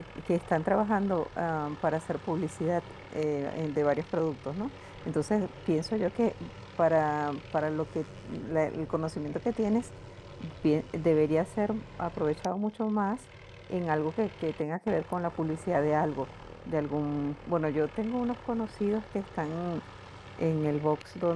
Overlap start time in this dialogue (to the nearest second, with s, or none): none